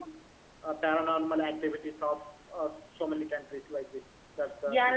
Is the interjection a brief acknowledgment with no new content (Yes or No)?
No